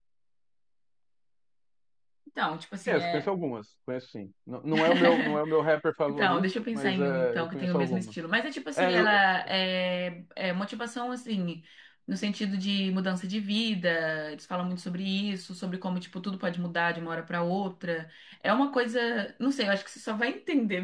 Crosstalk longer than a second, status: present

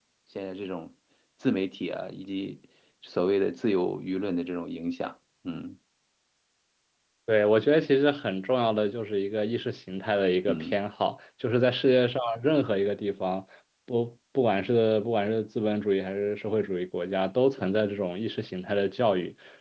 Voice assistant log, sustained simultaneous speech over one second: none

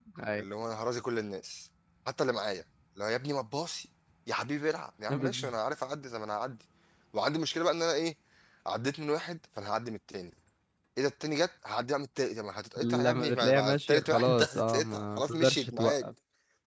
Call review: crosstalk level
present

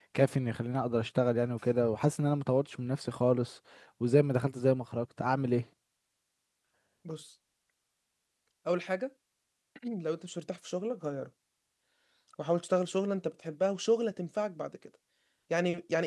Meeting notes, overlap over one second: none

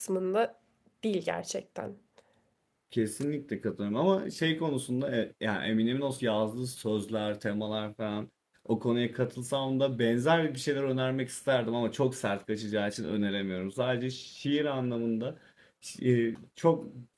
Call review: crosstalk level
none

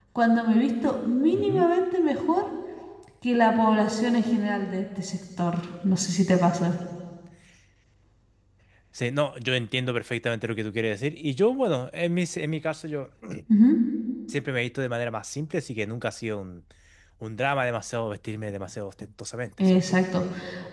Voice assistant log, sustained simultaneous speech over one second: none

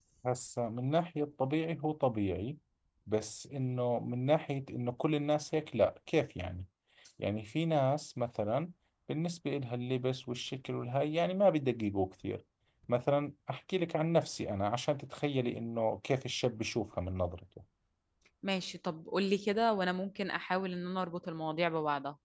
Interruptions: none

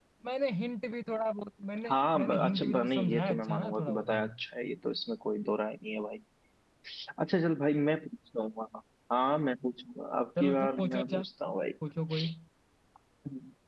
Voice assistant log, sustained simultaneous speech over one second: present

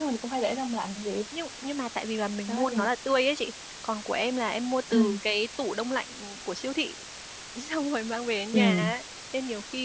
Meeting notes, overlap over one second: none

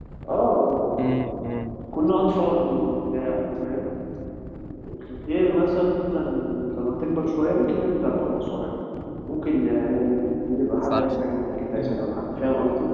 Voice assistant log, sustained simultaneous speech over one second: none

